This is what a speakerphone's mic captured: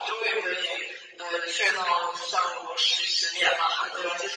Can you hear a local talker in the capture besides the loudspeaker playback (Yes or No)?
No